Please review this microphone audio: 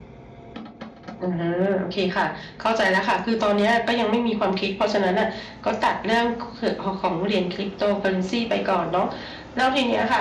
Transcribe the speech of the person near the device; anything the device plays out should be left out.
none

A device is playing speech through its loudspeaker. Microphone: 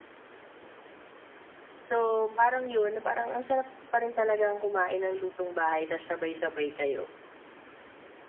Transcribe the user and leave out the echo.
So, parang 'yon, na parang ang sarap pa rin talagang kumain ng lutong-bahay ta's sabay-sabay kayo.

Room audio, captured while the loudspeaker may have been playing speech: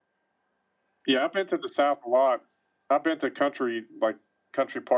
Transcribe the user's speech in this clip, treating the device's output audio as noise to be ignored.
none

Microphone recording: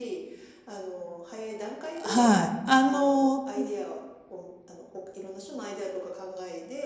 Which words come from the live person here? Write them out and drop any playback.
はい、あの、うん

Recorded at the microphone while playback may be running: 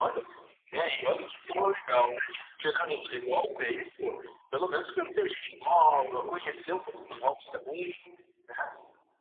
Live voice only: Aí eu

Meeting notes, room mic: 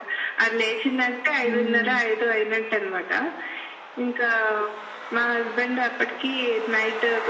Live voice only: హ్మ్.

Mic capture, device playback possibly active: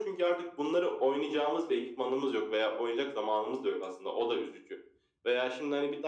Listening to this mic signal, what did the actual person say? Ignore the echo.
none

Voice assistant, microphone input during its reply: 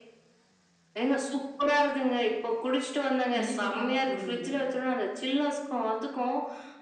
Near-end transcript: இனிப்புக்காக போடுவீங்க.

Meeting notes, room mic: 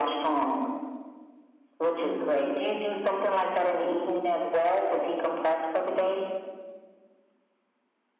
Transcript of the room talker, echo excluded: Mhm.

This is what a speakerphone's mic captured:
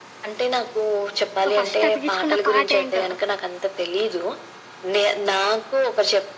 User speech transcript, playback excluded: సో ఫస్ట్ అతికిచ్చుకున్న పాటేంటో?

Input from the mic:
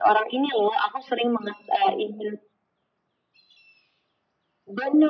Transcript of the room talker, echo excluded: none

